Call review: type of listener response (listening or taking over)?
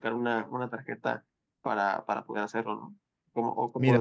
taking over